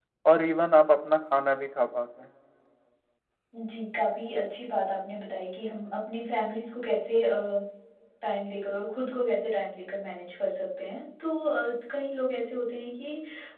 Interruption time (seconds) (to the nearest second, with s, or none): none